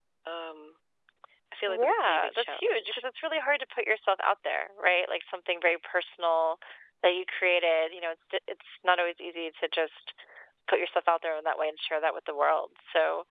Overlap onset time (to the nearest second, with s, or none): 2 s